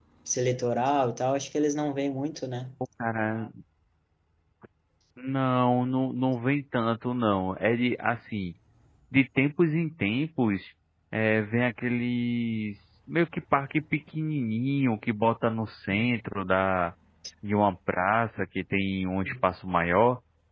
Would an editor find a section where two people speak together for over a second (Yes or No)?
No